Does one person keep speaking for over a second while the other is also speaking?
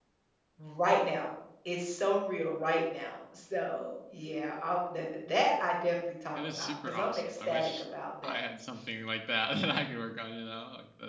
Yes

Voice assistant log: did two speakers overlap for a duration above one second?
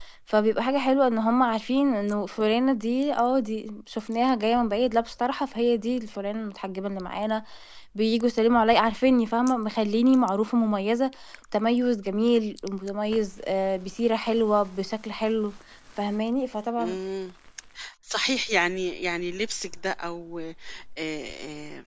No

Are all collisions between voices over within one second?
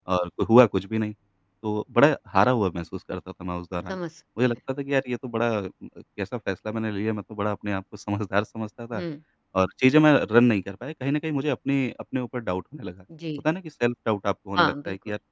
Yes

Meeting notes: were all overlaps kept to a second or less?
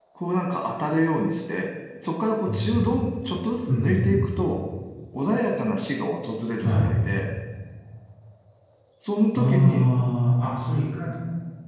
Yes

